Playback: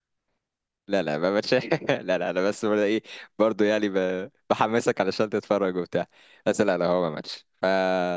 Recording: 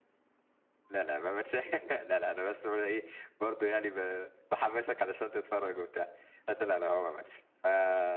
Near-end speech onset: none

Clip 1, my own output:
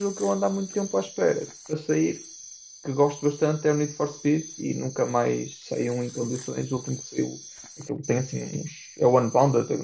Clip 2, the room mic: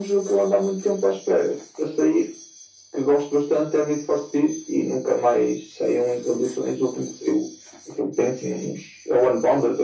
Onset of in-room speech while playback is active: none

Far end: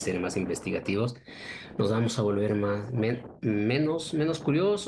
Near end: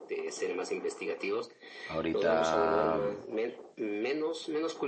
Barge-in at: 1.8 s

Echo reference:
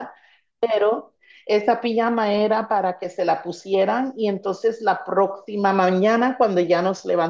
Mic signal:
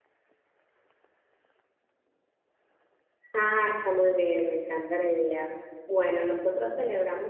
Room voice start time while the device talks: 3.3 s

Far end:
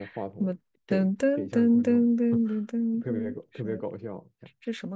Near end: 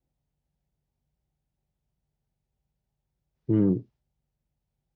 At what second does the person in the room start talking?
3.5 s

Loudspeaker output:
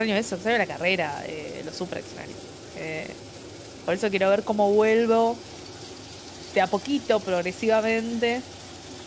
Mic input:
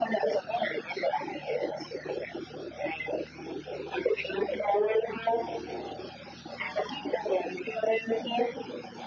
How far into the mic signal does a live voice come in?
none

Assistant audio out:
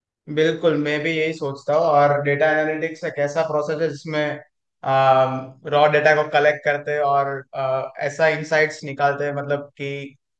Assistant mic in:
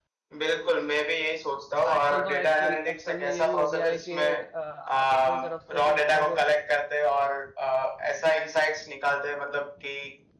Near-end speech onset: 1.9 s

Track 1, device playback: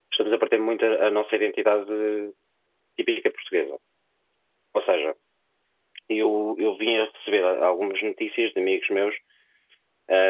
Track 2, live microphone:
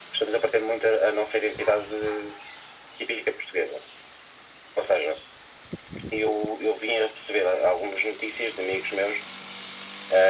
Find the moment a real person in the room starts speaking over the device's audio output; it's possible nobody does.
none

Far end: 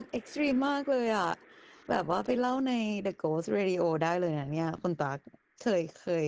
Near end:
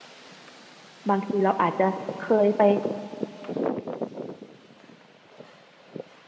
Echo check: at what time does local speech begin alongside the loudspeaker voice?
1.1 s

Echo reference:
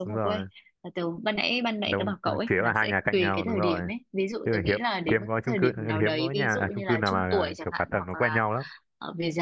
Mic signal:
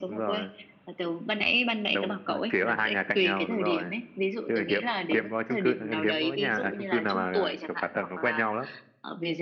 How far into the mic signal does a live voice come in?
none

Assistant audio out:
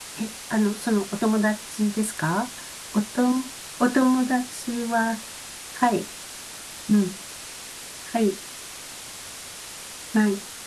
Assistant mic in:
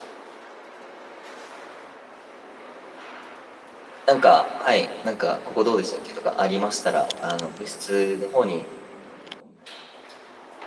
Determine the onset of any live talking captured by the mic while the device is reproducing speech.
4.1 s

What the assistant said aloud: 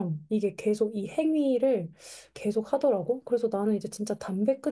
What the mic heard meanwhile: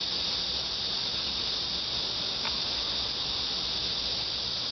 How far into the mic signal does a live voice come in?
none

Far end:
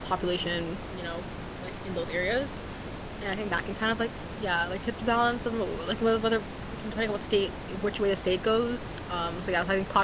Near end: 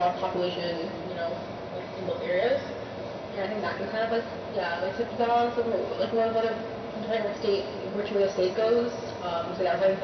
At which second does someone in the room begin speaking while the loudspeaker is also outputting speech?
none

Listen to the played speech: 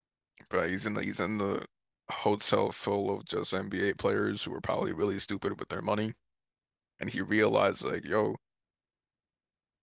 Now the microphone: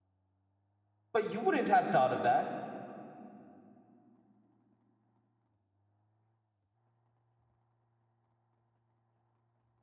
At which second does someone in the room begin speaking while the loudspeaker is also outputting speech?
1.1 s

